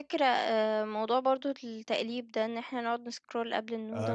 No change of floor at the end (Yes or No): No